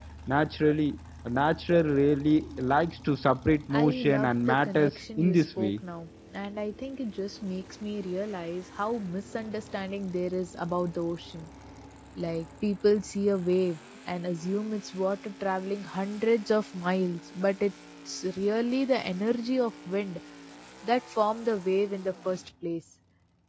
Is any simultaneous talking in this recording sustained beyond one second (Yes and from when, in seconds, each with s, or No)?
Yes, from 3.7 s